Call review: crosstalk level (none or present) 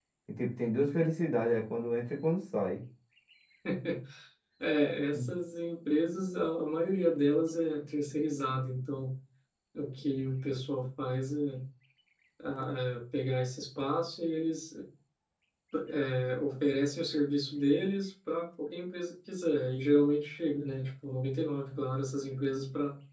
none